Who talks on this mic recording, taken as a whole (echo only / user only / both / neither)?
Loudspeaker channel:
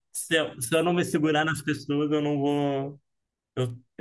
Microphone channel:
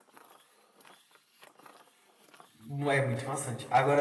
user only